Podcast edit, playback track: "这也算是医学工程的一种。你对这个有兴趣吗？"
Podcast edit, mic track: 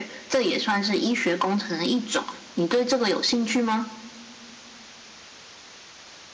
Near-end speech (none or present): none